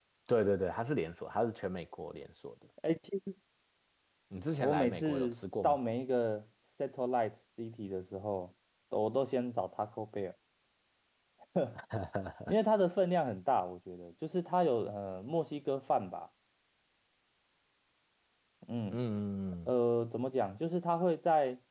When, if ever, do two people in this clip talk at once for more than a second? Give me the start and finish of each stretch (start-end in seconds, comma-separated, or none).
4.6-5.8